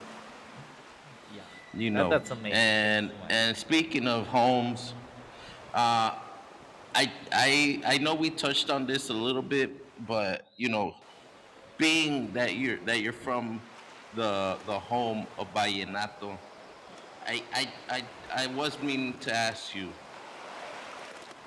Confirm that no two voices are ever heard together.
No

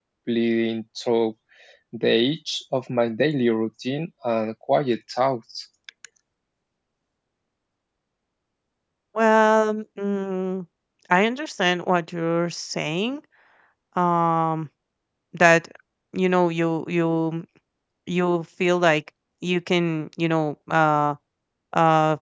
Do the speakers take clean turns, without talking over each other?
Yes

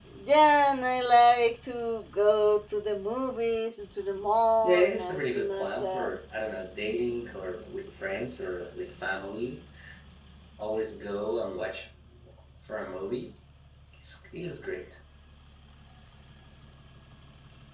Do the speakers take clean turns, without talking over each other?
No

